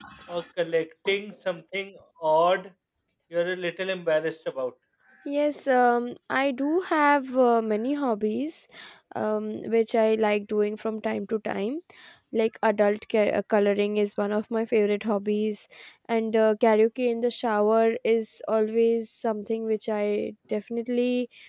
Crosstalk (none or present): none